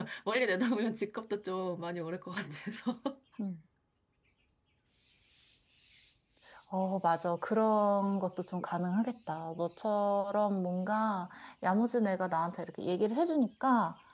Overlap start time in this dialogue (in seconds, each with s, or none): none